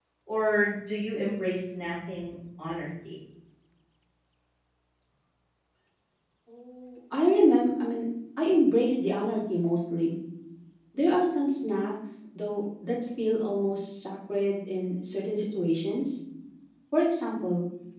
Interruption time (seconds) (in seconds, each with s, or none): none